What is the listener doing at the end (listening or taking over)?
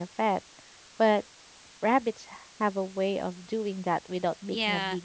taking over